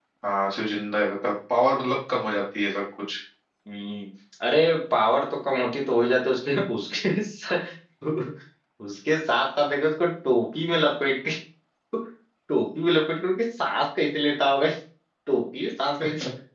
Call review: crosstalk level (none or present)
none